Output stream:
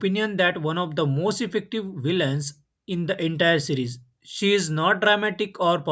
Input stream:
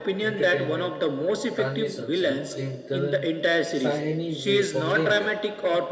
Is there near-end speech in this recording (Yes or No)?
Yes